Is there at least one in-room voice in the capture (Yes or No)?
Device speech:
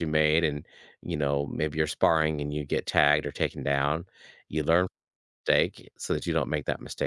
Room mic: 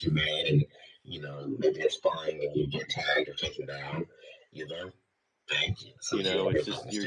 Yes